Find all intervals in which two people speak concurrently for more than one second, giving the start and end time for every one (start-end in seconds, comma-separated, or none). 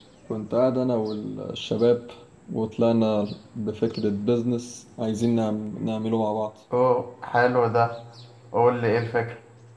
none